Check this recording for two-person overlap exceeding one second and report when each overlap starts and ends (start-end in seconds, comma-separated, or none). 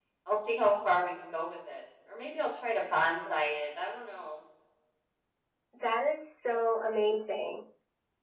none